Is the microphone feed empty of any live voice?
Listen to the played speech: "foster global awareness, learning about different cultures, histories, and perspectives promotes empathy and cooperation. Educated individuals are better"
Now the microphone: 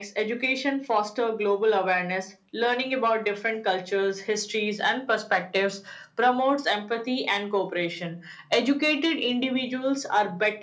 Yes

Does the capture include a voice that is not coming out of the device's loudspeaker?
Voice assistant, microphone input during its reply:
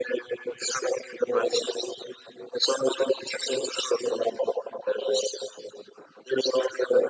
No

